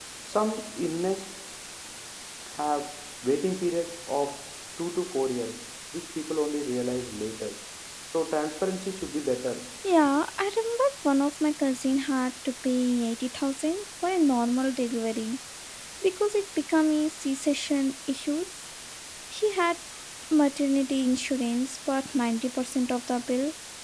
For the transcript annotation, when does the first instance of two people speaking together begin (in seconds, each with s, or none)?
none